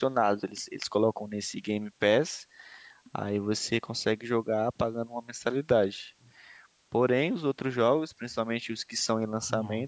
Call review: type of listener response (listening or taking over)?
listening